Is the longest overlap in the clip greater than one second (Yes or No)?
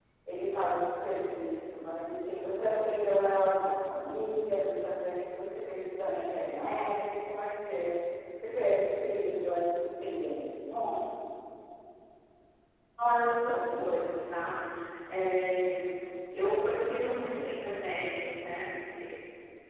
No